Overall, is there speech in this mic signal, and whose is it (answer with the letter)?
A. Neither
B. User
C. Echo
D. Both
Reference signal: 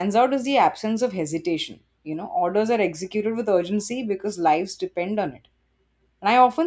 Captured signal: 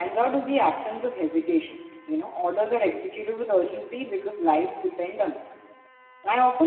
C